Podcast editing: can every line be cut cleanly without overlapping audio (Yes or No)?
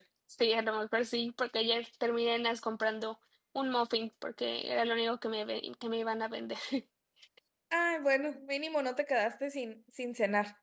Yes